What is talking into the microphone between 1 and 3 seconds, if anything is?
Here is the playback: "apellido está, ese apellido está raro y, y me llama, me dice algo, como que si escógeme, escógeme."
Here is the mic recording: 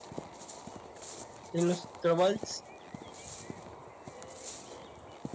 user only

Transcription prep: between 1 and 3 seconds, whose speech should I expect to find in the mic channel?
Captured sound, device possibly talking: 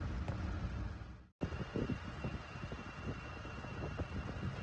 neither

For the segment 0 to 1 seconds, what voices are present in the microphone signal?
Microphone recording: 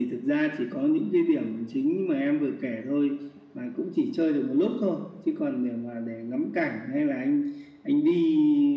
echo only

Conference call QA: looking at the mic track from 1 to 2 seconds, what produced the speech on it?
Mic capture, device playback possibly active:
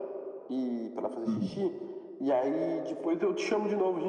both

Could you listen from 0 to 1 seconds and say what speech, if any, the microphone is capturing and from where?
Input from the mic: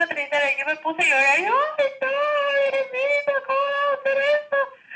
echo only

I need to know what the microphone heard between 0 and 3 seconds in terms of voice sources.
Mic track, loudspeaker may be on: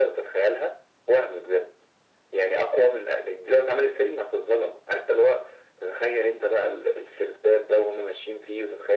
echo only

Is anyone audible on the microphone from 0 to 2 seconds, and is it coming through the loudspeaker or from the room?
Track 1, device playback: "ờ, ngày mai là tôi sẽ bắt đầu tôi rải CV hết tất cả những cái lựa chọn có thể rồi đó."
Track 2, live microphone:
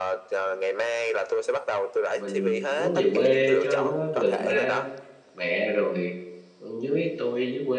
echo only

